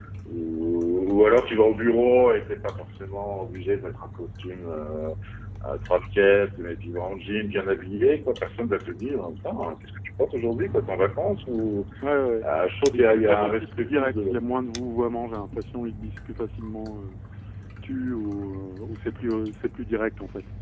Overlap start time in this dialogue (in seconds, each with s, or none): 12.9 s